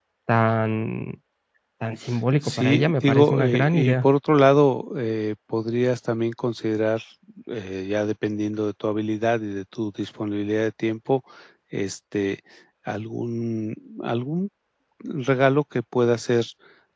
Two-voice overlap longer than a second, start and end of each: 2.4-4.1

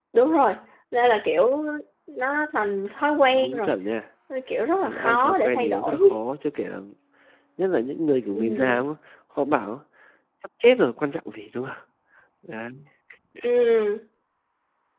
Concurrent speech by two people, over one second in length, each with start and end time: 4.8-6.0

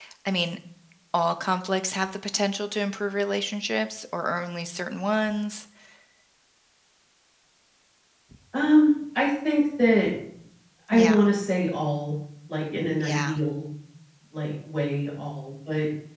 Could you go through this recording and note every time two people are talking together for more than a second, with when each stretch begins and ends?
none

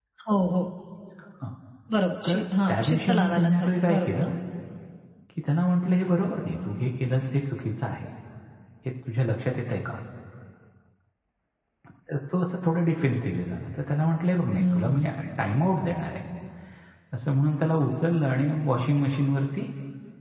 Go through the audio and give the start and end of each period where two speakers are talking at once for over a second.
2.3-4.2

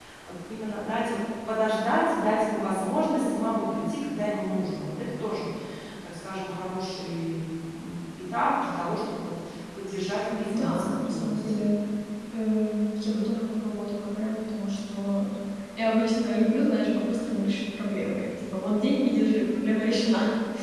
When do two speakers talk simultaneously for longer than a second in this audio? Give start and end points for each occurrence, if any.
10.3-11.6

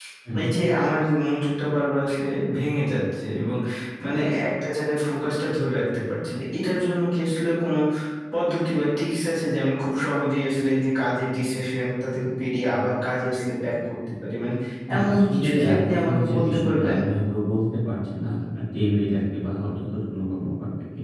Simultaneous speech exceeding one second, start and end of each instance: 15.0-17.0

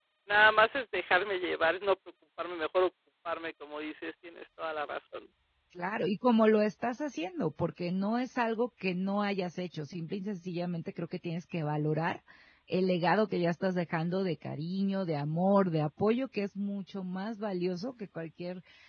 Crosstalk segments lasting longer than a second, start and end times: none

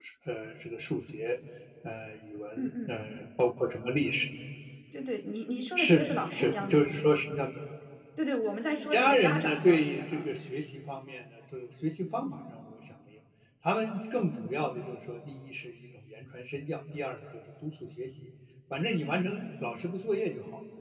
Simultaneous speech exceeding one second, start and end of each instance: 5.8-7.2, 8.9-10.2

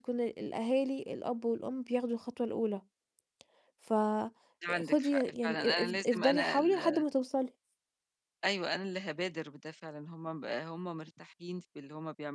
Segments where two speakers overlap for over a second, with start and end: 4.8-7.0

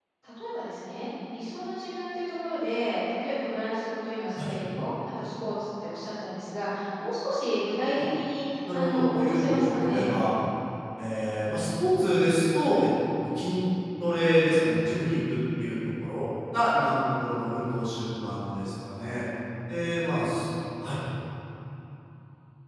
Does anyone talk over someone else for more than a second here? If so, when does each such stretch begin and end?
8.7-10.1

